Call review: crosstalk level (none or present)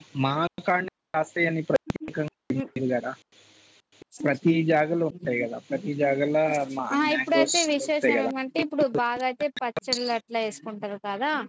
present